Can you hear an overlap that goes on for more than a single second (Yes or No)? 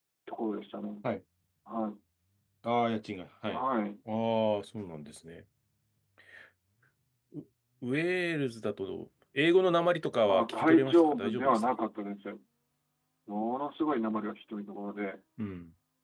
Yes